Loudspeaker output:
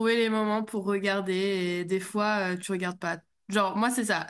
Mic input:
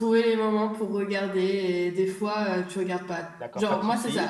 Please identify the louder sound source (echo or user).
echo